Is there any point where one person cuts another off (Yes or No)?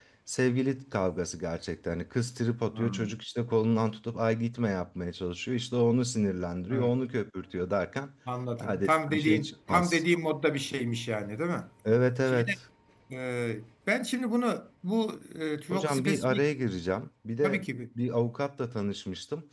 Yes